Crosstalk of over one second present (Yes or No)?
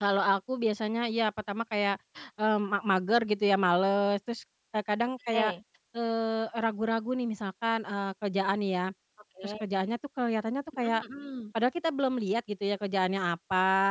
No